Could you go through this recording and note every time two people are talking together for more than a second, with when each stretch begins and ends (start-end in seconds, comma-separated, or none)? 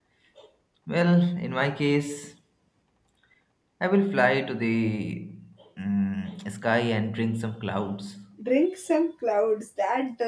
none